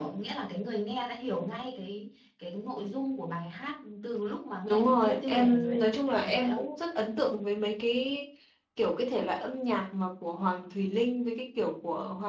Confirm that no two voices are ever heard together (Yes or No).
No